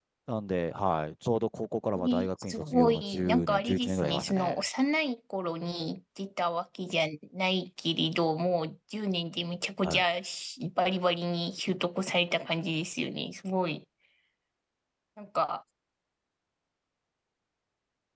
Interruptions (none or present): present